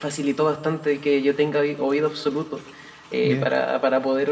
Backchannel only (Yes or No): Yes